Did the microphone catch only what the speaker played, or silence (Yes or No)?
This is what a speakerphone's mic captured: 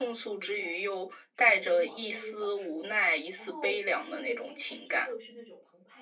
No